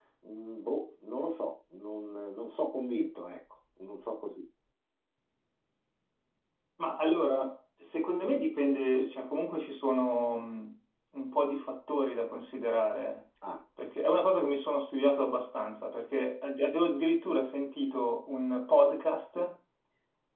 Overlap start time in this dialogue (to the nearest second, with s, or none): none